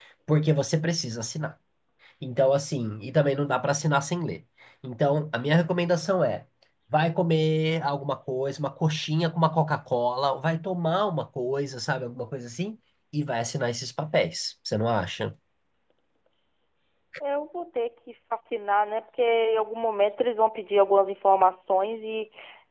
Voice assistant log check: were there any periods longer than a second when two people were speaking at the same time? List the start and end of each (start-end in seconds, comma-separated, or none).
none